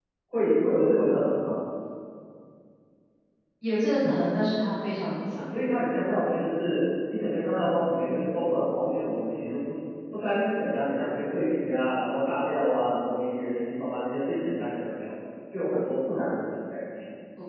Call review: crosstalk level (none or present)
none